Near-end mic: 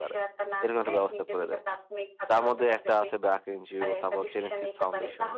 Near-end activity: present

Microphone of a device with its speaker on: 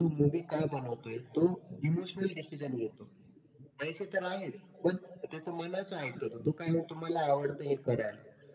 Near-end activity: none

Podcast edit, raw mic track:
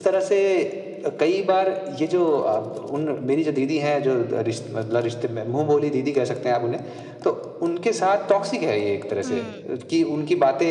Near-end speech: present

